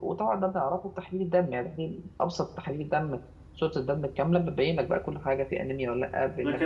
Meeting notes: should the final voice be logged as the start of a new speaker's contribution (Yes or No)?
Yes